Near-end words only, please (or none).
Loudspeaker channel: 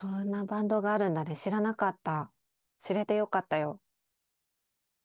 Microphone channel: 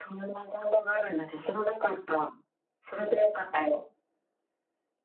none